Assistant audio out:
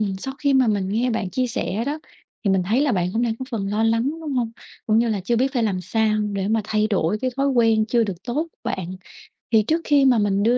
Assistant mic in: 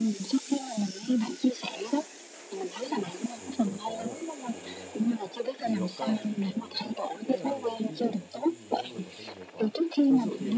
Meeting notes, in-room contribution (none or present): present